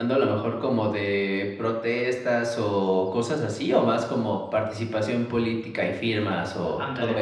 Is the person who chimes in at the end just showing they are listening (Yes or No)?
No